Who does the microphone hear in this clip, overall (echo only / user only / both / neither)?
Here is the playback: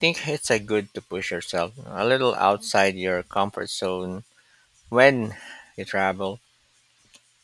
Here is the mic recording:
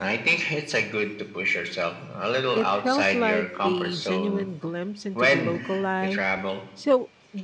both